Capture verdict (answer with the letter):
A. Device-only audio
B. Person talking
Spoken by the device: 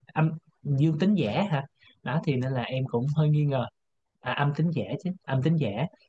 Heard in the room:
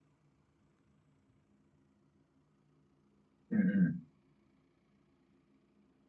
B